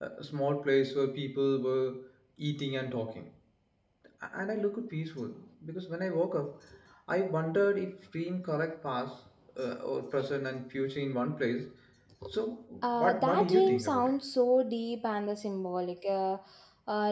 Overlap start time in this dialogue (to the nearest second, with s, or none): 13 s